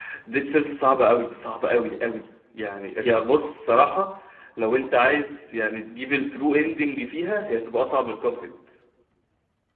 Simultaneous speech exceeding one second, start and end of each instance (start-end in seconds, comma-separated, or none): none